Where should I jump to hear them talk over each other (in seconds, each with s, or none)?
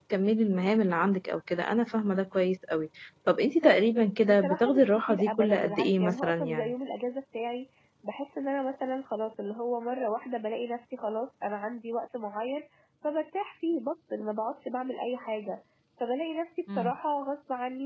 4.2 s